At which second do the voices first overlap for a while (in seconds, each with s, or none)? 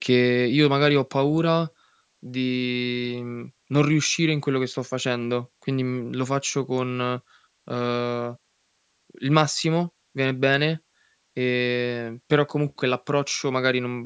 none